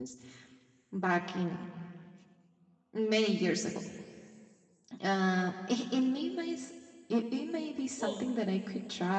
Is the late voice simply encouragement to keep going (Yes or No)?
Yes